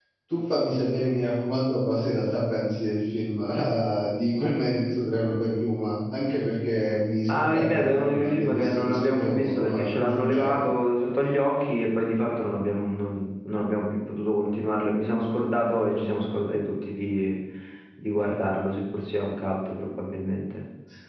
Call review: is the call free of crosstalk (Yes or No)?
No